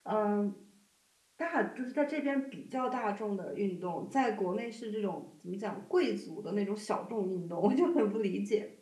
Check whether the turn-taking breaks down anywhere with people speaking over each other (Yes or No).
No